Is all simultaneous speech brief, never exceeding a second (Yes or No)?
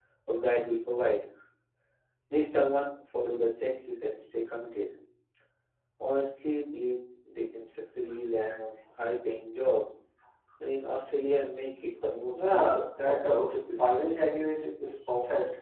No